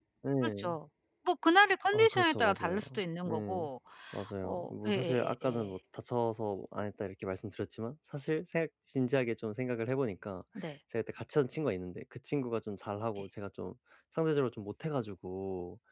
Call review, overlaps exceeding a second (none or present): present